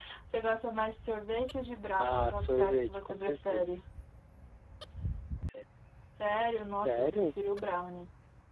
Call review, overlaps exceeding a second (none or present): present